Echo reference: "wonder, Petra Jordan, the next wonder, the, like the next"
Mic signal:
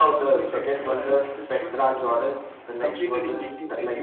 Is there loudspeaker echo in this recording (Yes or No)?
Yes